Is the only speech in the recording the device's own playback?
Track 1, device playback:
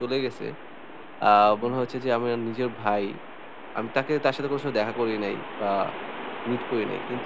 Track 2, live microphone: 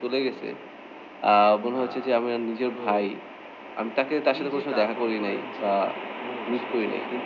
No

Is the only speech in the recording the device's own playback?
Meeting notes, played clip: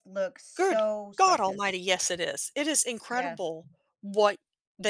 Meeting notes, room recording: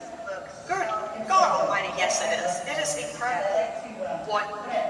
No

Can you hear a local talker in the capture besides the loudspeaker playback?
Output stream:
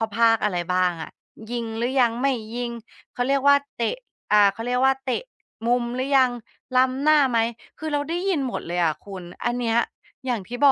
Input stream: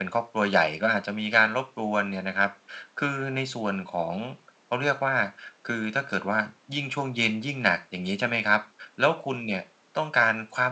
Yes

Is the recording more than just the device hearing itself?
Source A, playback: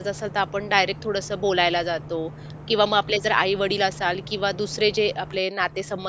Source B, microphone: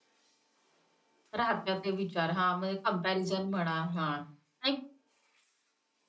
Yes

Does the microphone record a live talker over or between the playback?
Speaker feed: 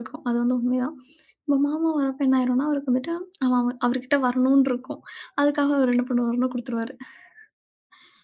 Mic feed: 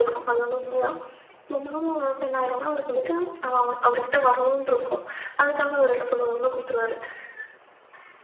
No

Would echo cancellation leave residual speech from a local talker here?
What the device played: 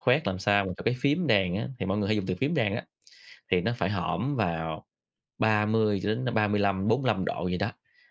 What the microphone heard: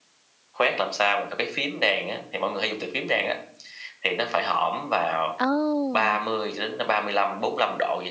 Yes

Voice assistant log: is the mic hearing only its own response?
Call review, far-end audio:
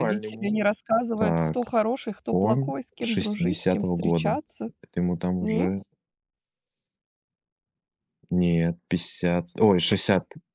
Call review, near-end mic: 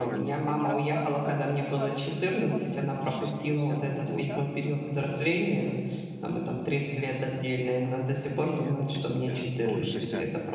No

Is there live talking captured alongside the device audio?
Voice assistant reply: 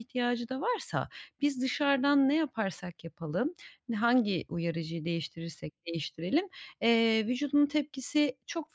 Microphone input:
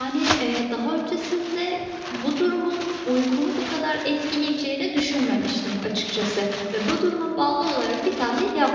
Yes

